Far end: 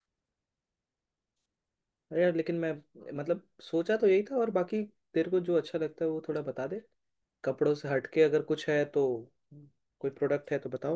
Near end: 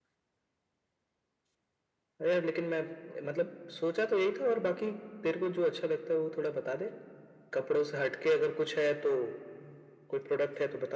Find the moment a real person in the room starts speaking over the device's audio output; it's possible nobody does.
none

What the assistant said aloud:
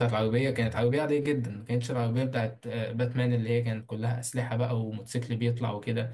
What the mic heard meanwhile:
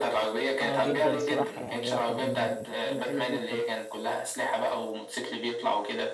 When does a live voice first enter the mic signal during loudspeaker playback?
1 s

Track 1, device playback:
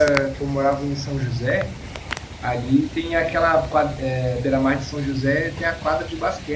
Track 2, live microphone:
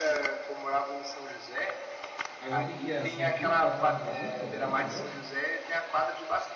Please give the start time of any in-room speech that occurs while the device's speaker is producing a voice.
2 s

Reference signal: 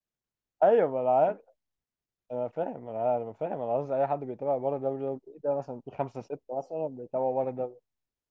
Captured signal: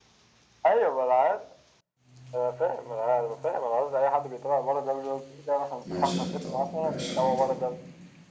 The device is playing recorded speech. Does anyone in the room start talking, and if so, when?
6 s

